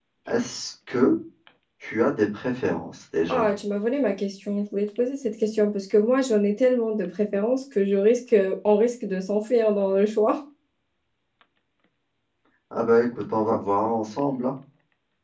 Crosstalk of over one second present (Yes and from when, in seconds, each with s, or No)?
No